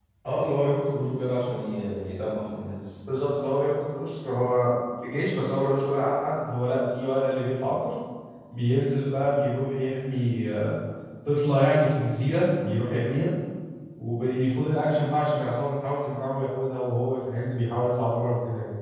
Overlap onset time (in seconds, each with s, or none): none